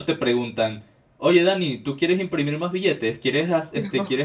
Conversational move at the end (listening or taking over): listening